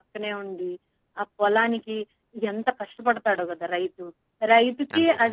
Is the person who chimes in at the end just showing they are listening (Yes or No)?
Yes